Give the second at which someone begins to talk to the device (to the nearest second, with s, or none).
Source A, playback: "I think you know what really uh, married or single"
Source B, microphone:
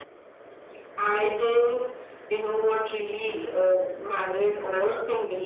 none